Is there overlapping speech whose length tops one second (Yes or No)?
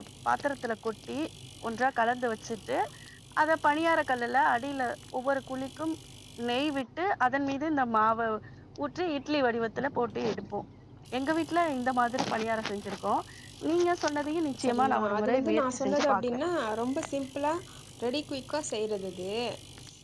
Yes